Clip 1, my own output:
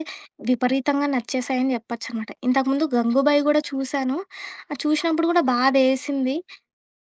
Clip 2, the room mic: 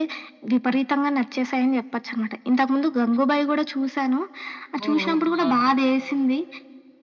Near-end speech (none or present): present